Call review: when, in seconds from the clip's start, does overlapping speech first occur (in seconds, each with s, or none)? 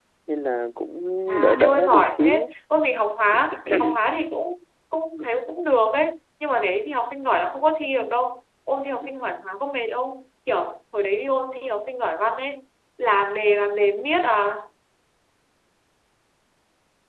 1.3 s